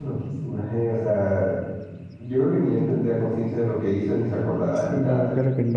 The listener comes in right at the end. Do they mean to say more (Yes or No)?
Yes